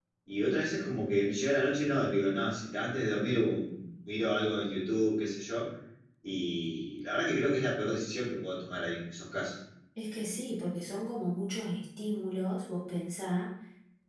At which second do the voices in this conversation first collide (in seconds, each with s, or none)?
none